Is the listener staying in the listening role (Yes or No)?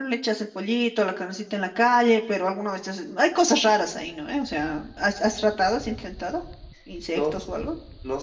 No